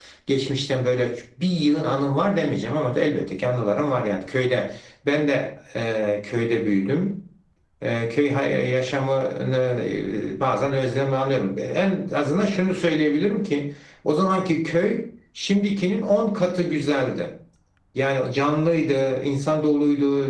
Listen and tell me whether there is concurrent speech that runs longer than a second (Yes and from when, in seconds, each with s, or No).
No